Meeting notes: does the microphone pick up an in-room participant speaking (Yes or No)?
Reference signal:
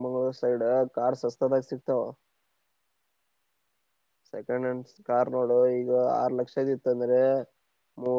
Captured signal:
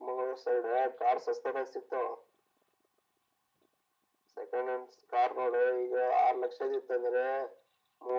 No